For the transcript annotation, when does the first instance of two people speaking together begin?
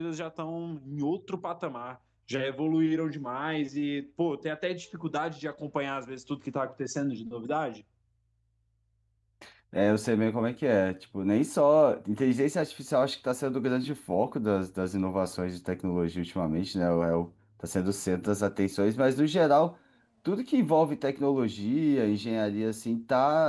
none

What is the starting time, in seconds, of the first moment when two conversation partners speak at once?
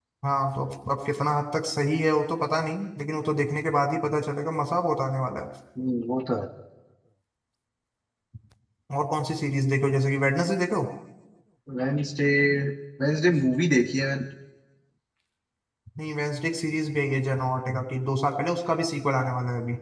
none

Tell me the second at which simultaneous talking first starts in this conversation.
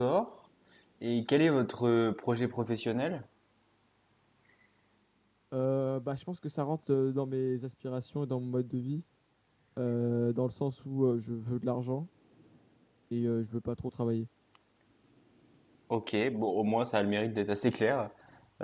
none

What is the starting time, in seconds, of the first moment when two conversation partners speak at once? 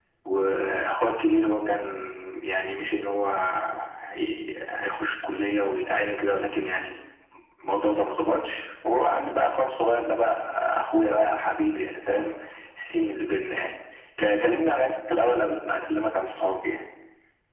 none

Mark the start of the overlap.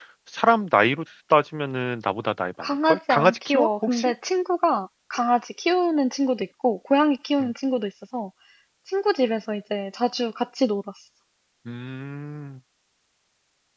2.9 s

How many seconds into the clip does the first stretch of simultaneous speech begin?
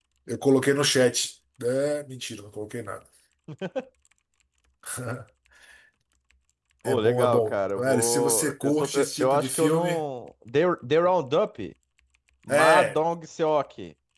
6.8 s

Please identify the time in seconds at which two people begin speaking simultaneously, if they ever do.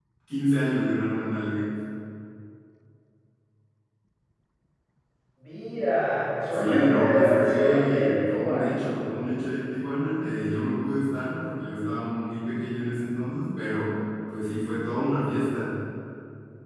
6.5 s

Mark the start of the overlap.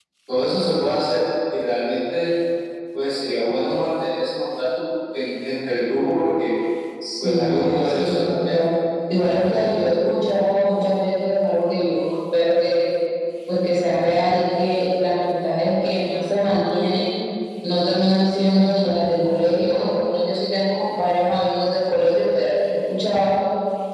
7.2 s

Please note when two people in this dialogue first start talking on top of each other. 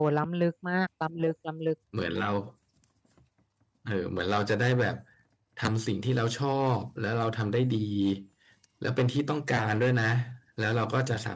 none

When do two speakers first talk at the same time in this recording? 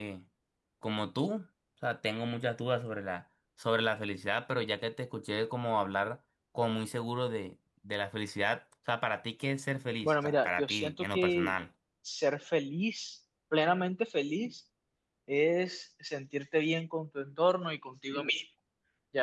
10.0 s

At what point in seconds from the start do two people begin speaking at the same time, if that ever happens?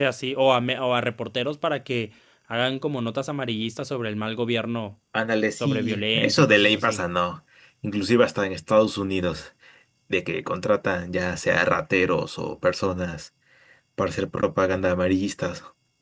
5.6 s

